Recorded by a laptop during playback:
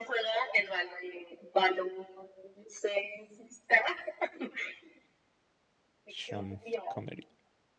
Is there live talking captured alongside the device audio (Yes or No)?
Yes